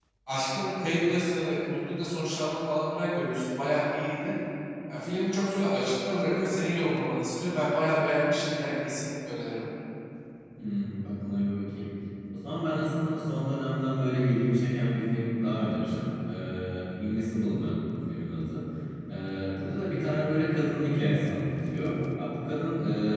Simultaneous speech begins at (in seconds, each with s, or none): none